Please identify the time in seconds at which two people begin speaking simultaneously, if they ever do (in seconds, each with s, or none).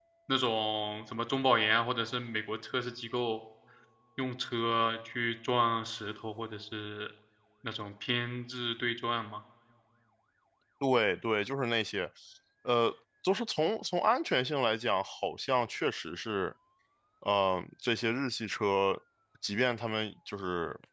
none